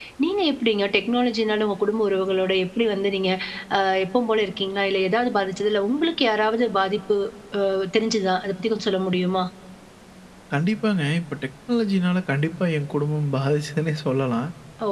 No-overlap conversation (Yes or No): Yes